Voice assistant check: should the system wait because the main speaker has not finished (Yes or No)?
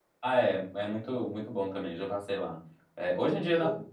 Yes